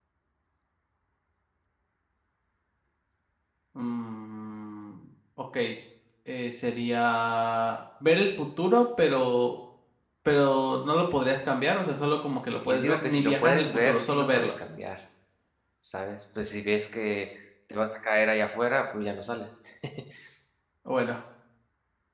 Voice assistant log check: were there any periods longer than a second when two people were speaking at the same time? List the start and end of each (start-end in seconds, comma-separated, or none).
12.7-14.5